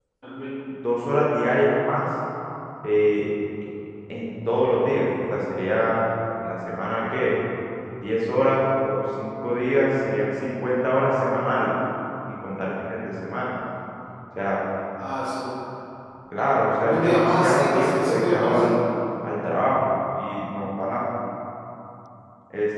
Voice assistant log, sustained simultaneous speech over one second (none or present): present